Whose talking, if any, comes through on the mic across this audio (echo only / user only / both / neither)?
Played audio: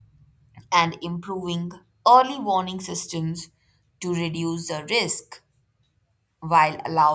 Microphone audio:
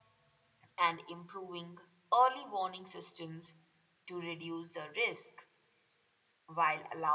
echo only